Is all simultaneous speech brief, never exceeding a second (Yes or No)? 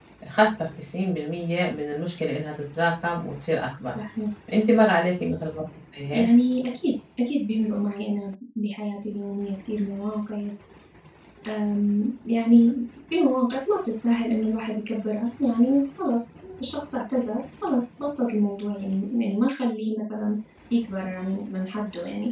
Yes